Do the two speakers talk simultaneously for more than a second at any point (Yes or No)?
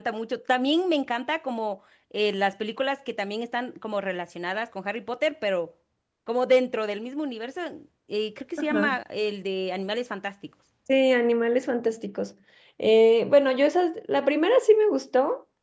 No